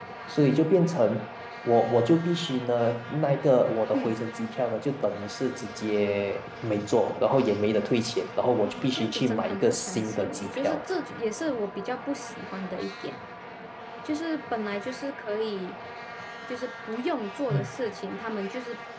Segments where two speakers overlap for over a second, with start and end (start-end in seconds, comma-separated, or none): 8.6-10.8